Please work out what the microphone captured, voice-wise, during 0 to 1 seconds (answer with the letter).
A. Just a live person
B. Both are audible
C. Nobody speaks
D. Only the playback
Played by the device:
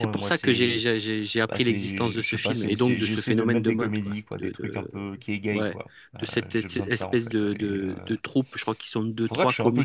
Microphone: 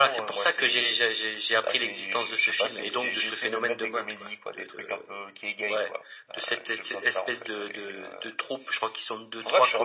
D